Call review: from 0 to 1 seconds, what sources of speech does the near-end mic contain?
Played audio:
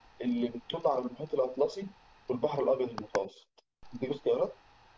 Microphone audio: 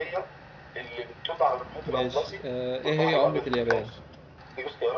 echo only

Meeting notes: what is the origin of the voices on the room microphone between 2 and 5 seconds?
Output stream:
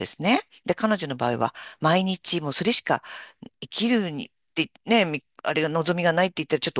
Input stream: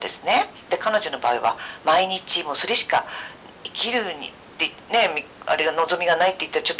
echo only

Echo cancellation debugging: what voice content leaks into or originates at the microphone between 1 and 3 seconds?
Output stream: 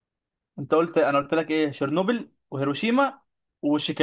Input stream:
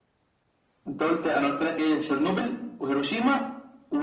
echo only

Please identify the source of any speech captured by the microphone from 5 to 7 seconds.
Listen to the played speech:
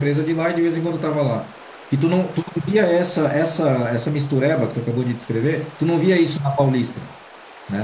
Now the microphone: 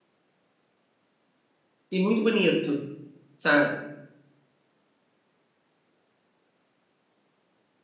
neither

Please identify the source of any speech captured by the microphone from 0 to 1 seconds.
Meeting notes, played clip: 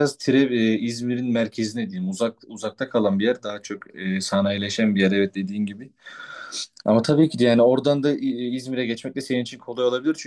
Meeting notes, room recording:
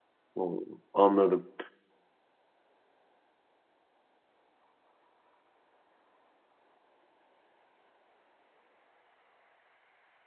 user only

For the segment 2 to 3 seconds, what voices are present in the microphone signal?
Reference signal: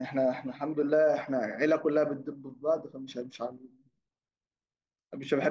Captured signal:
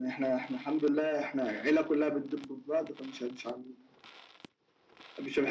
echo only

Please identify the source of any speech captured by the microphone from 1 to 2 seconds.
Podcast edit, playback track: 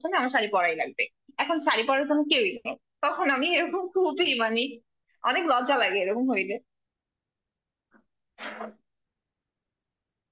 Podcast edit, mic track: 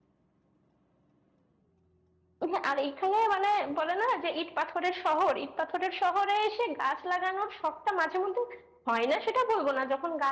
neither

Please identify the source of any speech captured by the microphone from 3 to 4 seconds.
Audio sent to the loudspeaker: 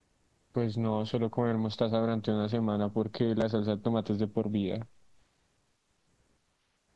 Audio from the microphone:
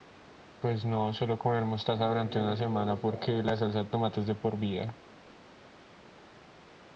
both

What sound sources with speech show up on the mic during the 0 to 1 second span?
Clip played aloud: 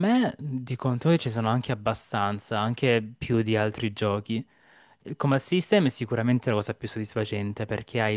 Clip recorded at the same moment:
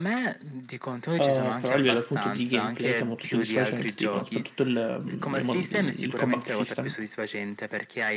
echo only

